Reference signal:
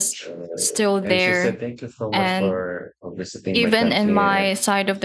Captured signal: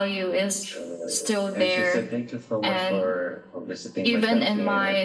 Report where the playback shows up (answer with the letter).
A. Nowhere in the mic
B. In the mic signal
B